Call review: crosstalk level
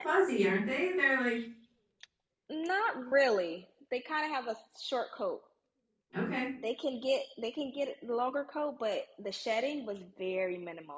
none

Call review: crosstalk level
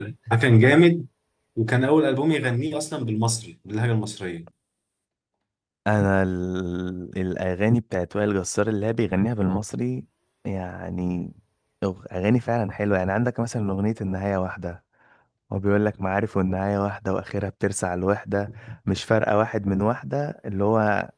none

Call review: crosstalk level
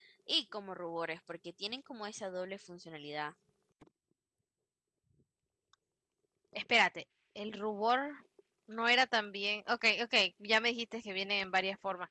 none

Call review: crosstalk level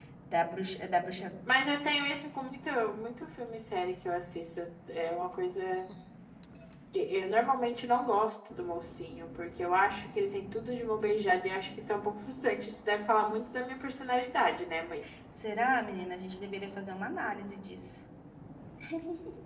none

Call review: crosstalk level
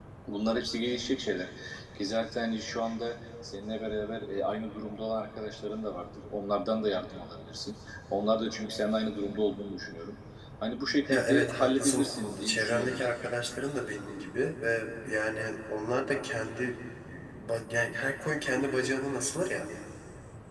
present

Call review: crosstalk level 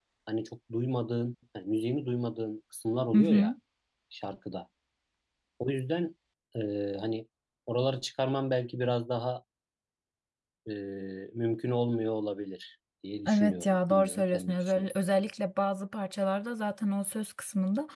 present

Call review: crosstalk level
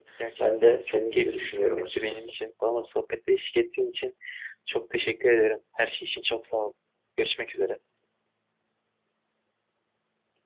present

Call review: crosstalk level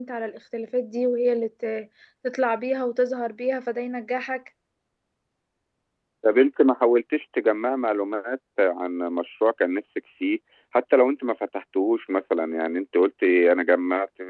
none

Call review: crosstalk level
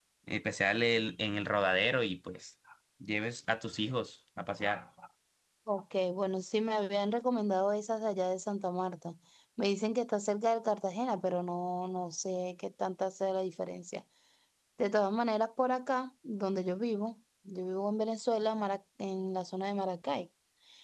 none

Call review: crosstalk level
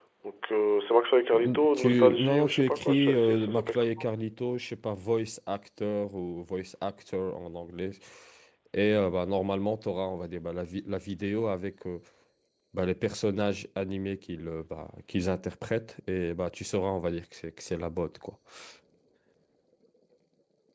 present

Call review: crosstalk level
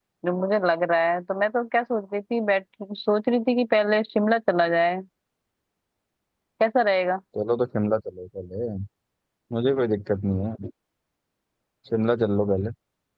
none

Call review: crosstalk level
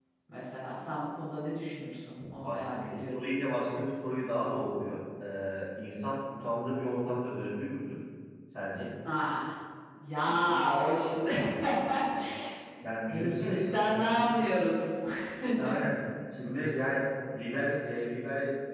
present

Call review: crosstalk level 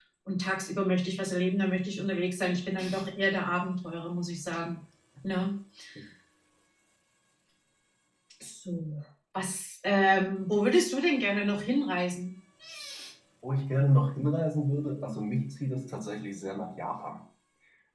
none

